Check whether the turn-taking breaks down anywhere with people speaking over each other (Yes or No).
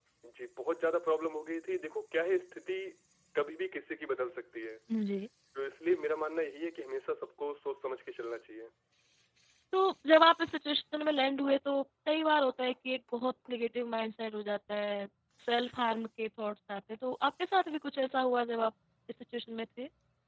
No